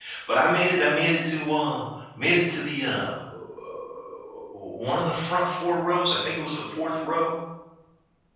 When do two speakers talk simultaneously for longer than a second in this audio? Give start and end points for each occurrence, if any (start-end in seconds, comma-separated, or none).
none